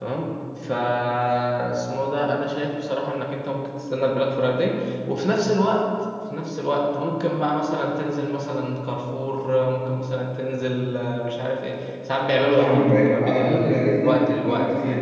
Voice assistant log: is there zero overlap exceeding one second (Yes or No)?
No